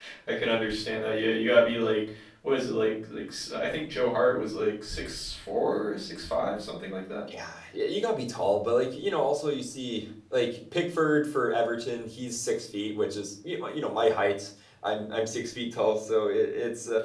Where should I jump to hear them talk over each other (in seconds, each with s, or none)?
none